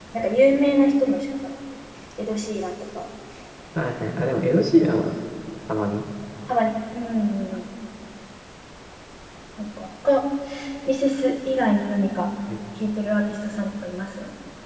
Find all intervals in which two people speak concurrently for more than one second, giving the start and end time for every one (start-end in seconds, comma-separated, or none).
none